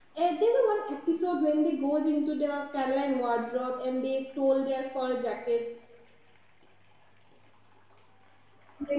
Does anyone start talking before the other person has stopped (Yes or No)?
No